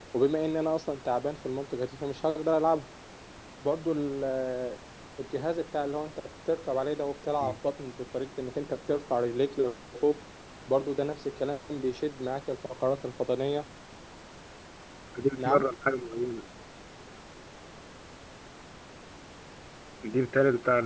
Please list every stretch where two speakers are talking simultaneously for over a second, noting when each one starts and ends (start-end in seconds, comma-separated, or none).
none